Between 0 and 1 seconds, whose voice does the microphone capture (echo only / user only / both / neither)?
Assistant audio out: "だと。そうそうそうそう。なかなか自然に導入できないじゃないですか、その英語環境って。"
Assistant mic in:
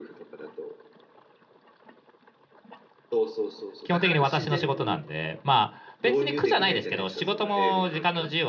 echo only